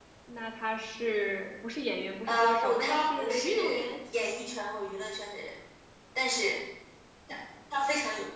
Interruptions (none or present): present